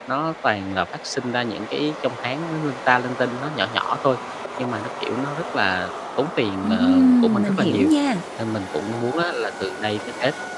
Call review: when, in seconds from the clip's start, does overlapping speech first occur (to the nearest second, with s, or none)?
7 s